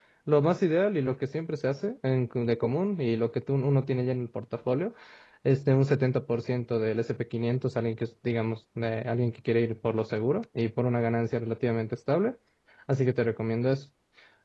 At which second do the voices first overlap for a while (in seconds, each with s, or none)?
none